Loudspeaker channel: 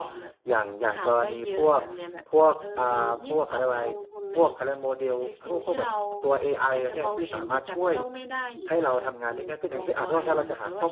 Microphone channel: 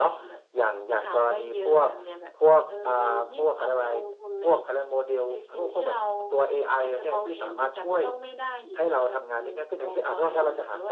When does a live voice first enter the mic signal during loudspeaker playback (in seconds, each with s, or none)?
none